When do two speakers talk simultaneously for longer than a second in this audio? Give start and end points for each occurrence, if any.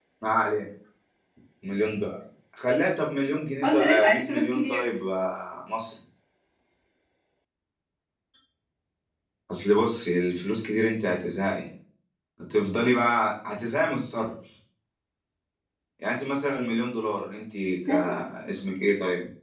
3.6-4.8

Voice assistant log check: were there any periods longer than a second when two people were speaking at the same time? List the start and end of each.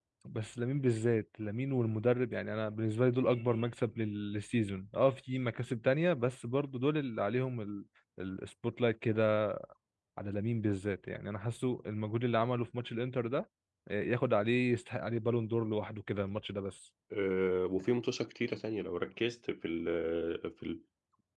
none

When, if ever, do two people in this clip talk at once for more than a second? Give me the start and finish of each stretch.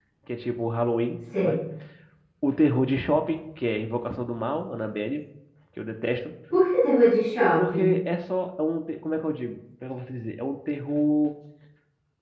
none

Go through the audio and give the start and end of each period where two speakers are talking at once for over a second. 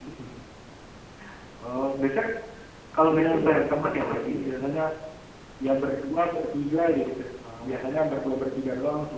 3.1-4.5

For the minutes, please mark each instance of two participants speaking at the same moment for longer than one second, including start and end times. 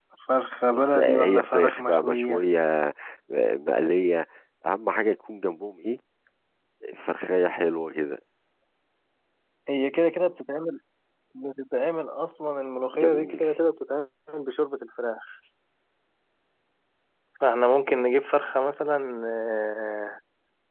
0.7-2.4

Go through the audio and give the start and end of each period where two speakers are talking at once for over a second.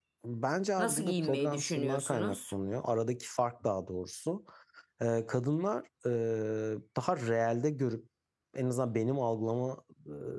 0.8-2.4

